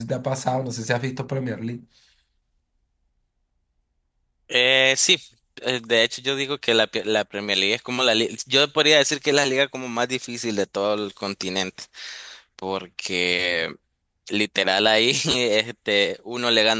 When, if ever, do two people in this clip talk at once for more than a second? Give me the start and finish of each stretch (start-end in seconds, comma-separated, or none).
none